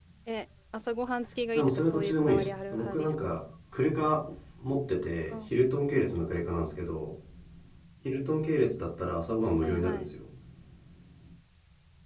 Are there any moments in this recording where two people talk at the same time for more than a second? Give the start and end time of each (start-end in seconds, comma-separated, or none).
1.5-3.1